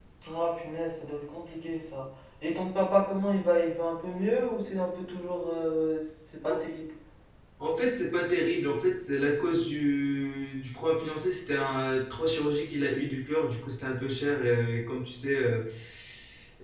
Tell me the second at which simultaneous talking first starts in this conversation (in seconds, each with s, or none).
none